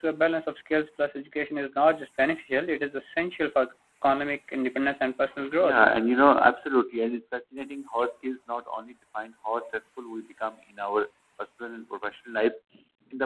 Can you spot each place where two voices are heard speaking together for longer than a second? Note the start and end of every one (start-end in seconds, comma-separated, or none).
none